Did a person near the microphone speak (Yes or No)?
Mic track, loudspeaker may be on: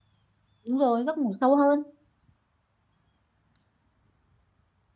Yes